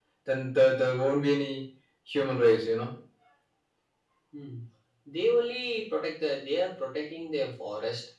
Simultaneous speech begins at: none

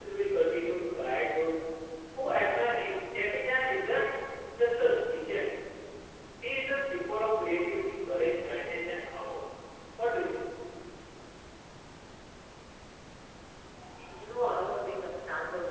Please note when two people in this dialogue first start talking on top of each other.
none

